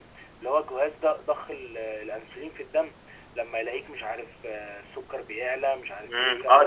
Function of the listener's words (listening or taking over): taking over